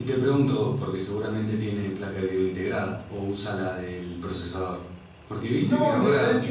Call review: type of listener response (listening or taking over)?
taking over